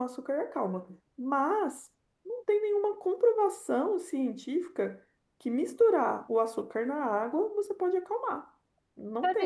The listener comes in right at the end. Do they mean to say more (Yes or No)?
Yes